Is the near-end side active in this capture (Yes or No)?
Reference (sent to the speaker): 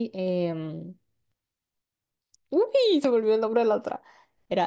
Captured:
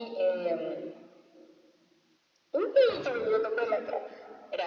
Yes